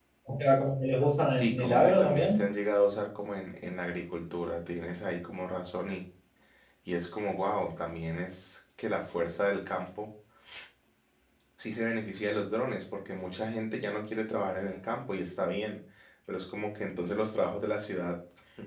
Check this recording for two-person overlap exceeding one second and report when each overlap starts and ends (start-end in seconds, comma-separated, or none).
1.3-2.5